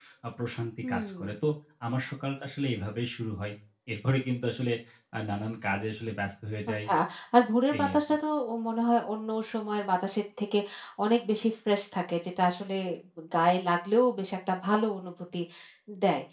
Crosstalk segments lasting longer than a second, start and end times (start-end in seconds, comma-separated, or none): none